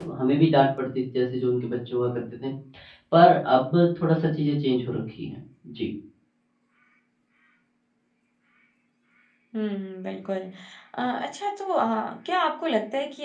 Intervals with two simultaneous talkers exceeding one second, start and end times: none

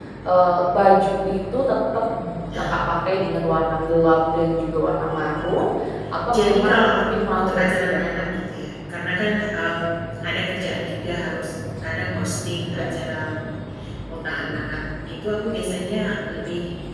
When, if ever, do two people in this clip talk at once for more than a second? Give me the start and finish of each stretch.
6.3-8.0

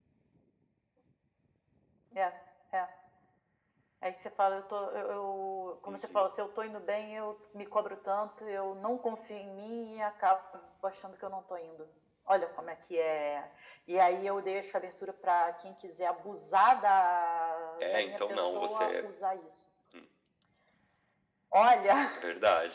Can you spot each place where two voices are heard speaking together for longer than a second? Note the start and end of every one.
17.8-19.0

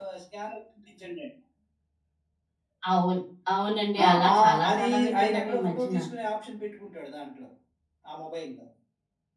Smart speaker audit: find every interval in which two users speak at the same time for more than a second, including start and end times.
4.0-6.0

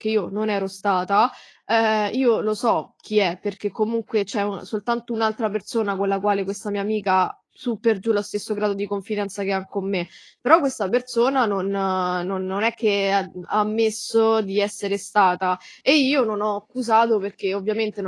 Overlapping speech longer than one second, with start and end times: none

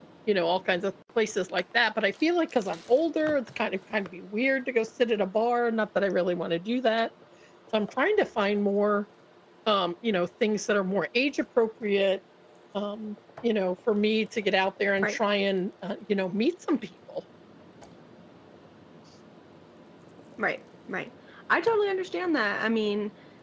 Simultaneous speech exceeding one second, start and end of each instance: none

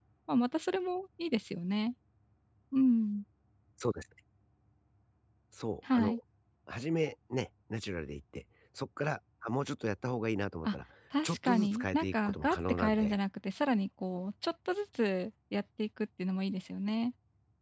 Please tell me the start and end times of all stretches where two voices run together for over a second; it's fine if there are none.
11.2-13.2

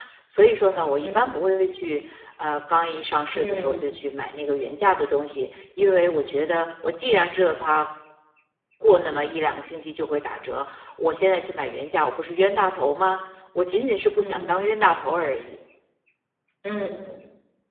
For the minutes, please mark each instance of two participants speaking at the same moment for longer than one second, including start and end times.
none

